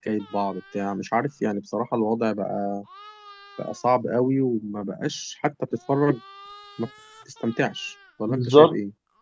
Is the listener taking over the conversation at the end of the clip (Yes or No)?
Yes